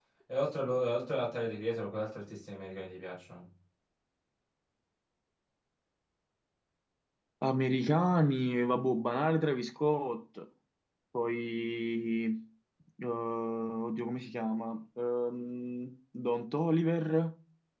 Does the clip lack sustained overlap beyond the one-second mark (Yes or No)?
Yes